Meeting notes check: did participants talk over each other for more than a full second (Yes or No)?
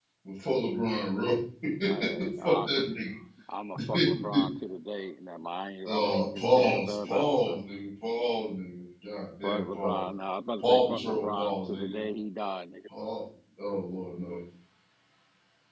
Yes